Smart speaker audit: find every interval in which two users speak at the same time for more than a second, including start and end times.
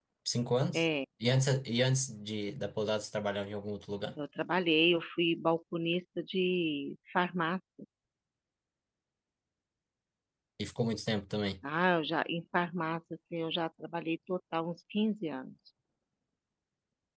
none

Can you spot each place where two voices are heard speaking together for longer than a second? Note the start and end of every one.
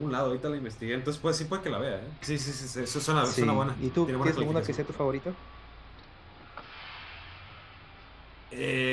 3.2-4.8

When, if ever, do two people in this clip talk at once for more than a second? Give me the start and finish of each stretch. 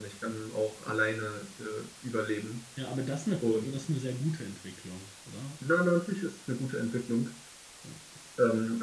none

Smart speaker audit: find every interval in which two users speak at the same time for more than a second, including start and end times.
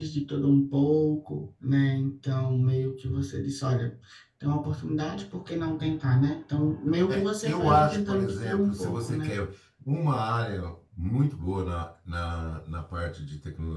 7.1-9.3

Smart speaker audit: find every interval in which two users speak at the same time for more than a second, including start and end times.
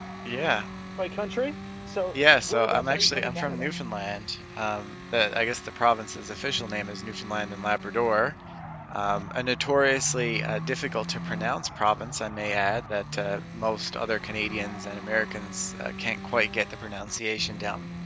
2.1-3.7

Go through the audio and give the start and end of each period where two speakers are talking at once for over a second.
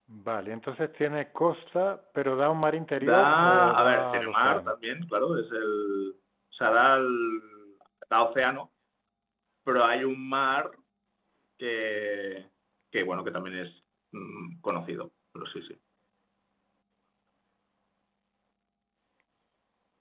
3.0-4.8

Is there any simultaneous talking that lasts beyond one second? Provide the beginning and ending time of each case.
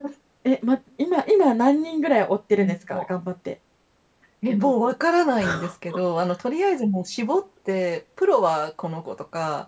none

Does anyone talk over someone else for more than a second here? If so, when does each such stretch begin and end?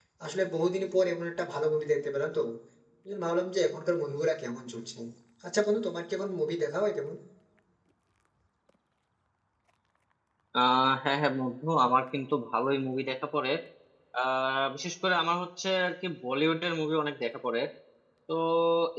none

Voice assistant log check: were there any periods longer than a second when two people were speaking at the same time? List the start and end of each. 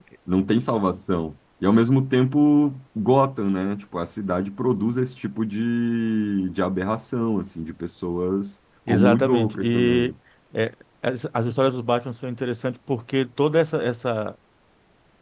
8.9-10.1

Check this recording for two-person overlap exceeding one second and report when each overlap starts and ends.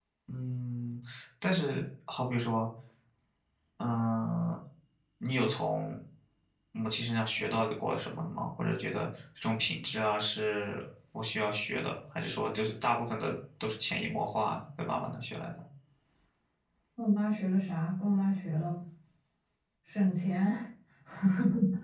none

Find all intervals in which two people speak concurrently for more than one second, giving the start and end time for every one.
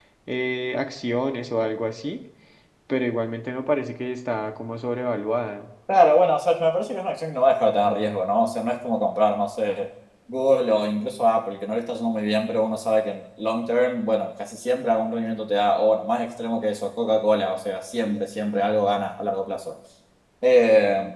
none

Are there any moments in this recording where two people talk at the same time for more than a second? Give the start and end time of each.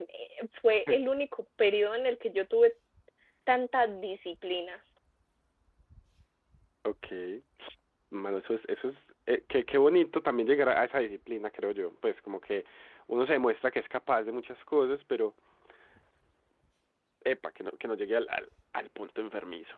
none

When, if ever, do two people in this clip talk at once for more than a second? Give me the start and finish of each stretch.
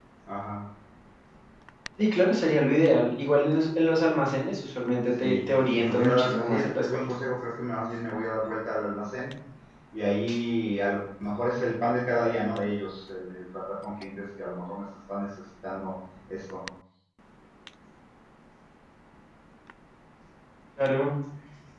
5.2-6.8

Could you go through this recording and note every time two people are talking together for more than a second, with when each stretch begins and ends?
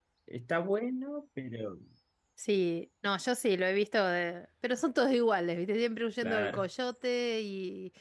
none

